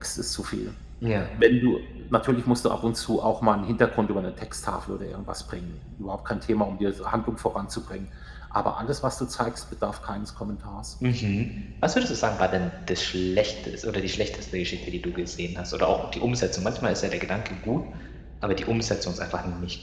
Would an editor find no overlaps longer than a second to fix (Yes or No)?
Yes